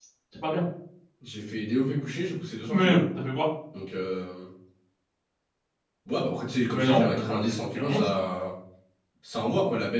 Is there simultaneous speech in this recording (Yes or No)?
Yes